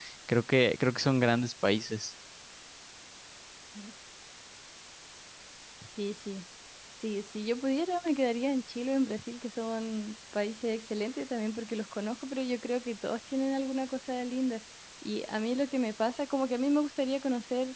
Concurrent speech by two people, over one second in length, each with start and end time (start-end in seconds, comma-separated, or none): none